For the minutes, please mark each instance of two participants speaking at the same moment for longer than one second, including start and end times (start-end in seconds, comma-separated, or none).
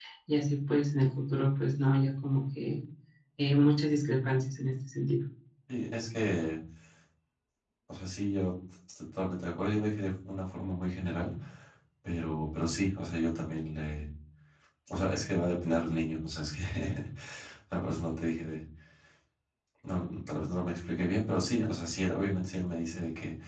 none